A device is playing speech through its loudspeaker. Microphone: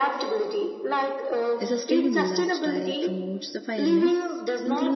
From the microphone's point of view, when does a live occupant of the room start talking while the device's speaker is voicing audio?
1.6 s

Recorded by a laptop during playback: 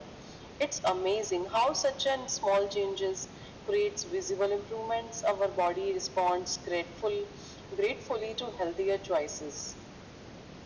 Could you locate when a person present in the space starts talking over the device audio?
none

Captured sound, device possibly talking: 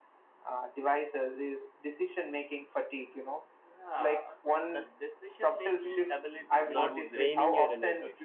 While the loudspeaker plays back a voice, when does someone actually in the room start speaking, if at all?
6.6 s

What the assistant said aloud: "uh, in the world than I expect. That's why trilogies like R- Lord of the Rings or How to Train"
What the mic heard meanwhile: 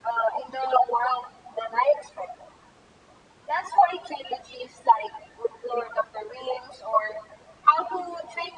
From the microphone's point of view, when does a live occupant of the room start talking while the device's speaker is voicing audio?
none

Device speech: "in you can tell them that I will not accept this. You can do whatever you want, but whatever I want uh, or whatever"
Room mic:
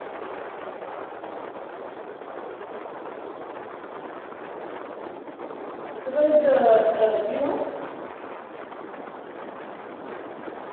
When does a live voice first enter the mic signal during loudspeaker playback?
6.1 s

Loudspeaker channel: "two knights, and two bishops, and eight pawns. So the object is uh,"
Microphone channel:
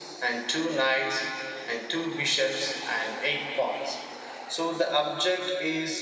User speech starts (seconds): none

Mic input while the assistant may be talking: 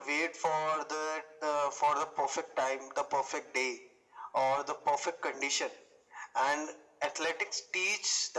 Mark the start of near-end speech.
none

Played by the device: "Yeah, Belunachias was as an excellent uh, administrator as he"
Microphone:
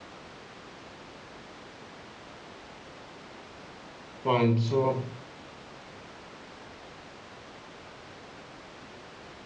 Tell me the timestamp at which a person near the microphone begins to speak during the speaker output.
4.2 s

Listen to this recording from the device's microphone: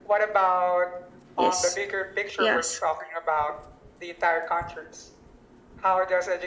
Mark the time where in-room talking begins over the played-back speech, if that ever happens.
1.4 s

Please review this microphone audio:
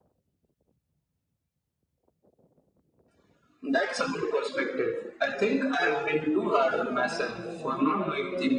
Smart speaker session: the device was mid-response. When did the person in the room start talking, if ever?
5.8 s

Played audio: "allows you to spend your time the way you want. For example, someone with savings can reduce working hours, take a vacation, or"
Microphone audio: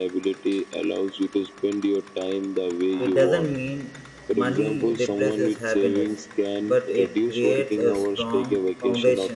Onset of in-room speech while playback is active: 3.0 s

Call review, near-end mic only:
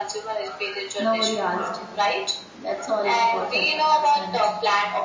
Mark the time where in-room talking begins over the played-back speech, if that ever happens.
1.0 s

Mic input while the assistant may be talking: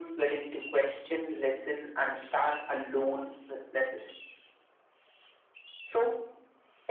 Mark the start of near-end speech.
none

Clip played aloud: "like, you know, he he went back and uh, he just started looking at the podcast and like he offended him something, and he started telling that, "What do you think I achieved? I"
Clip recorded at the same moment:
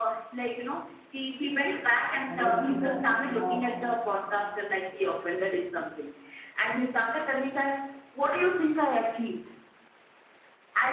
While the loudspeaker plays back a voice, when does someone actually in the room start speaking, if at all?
2.2 s

